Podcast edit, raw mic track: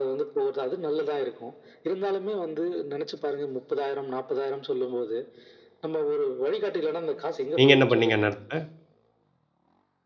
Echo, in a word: present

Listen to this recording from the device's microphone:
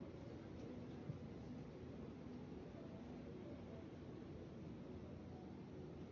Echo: none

